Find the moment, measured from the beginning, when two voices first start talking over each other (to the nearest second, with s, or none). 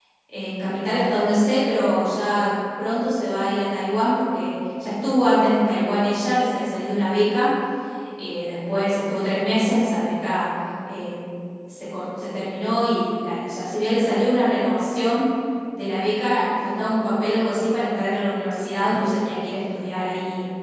none